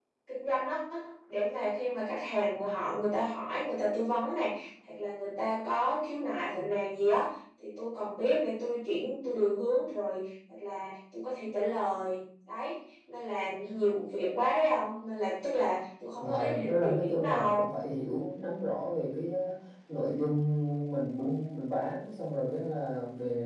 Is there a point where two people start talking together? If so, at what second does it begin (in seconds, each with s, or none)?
16.2 s